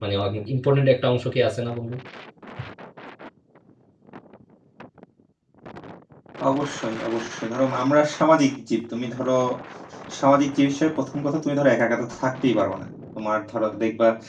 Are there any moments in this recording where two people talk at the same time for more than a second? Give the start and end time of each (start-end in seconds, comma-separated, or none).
none